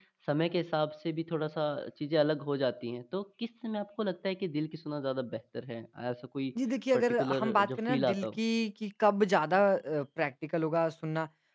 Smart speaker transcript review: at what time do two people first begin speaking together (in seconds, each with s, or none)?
6.9 s